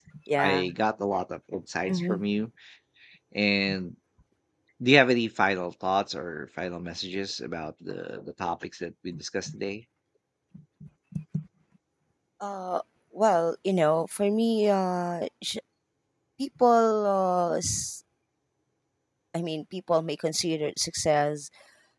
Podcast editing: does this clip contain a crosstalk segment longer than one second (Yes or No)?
No